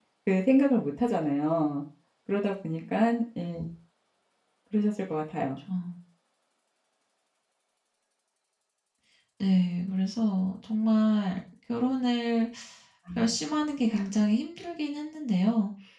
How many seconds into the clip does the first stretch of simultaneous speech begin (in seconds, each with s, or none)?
none